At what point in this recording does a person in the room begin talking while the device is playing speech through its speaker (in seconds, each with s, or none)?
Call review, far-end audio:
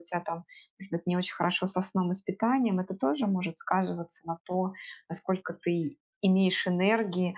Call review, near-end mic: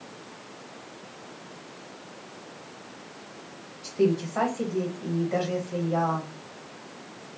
3.8 s